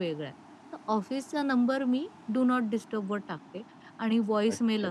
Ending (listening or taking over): listening